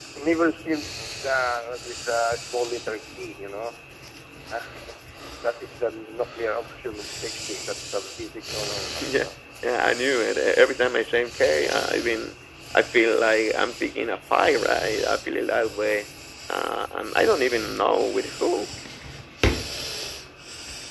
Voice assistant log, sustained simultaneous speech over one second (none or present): none